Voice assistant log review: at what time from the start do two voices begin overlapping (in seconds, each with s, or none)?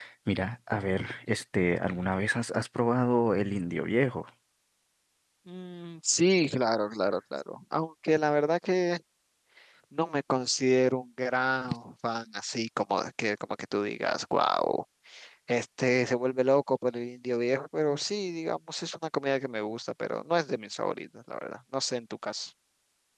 none